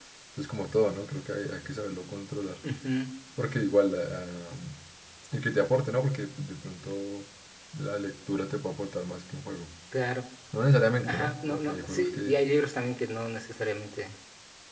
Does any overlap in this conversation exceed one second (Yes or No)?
Yes